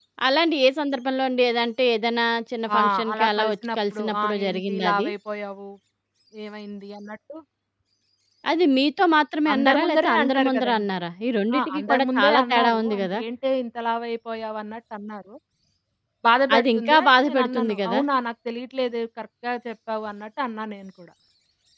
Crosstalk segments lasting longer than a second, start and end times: 2.8-5.1, 9.5-10.8, 11.6-13.2, 16.6-18.0

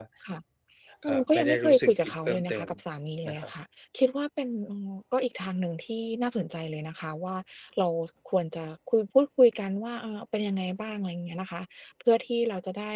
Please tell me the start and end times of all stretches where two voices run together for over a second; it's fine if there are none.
1.1-2.7

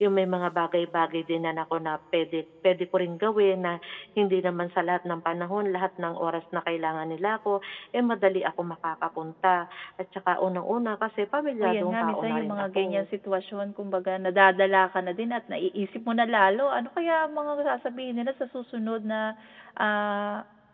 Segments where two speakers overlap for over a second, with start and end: 11.6-13.1

